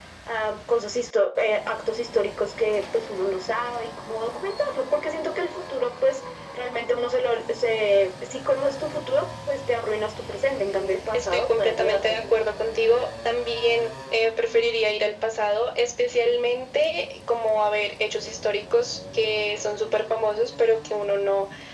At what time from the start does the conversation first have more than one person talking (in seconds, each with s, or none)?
11.1 s